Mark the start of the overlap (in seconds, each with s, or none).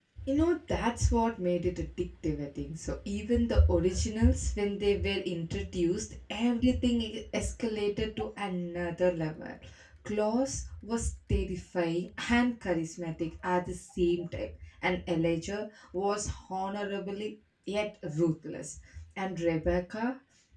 none